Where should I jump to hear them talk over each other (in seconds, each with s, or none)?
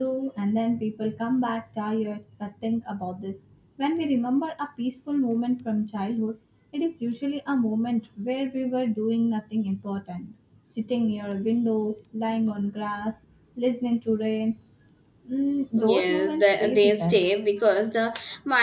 15.8 s